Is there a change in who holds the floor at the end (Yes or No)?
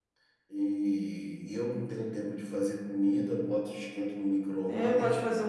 Yes